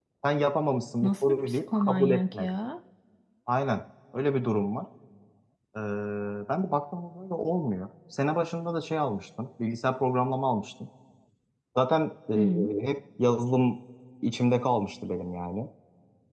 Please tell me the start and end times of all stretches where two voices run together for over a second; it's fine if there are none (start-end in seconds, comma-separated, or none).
1.0-2.5